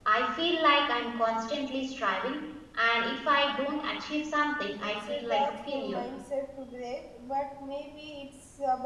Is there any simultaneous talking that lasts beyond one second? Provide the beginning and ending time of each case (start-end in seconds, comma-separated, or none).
4.8-6.0